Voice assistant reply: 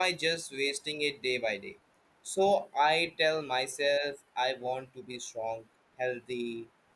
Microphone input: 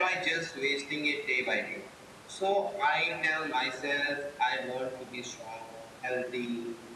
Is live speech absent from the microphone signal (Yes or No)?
Yes